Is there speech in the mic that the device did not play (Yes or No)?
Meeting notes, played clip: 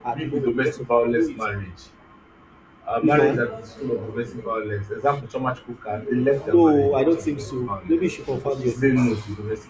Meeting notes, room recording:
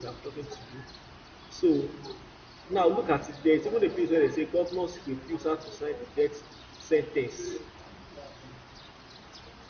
Yes